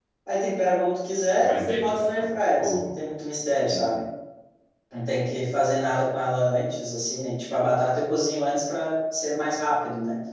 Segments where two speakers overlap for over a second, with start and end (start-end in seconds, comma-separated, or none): 1.4-2.9